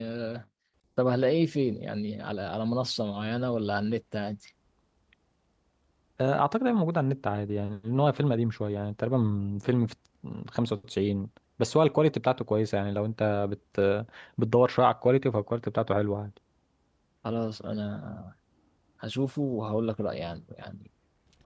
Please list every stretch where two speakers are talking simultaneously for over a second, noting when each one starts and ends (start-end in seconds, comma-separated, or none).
none